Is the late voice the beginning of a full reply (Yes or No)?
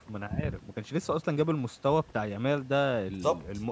No